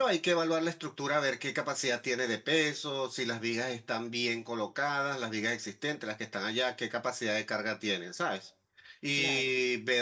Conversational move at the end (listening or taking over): listening